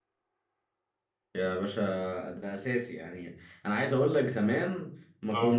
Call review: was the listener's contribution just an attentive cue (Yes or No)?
Yes